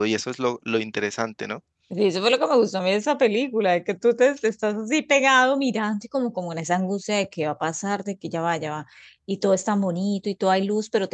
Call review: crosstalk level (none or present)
none